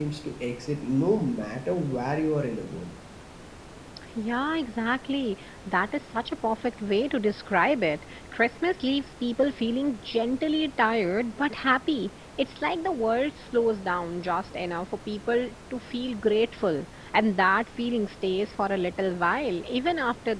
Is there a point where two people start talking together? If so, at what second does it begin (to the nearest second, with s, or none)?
none